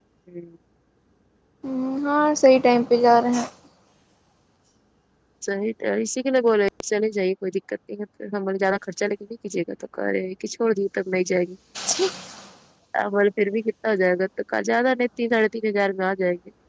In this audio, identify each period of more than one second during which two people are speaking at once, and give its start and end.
none

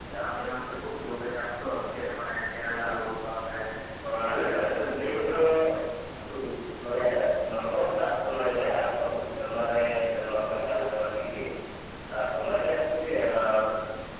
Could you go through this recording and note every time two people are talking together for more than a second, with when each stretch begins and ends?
4.2-5.4

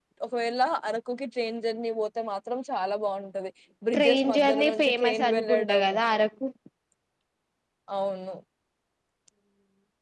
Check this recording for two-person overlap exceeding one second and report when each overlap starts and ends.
4.0-5.9

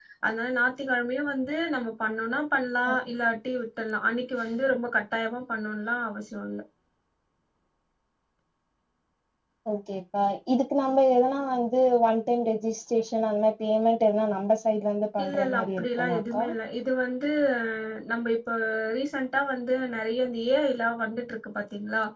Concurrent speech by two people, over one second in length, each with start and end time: 15.2-16.4

